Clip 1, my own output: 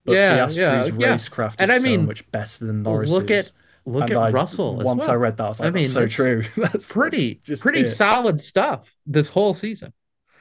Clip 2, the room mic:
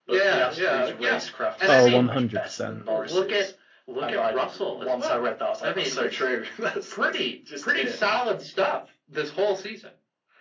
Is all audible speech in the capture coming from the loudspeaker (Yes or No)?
No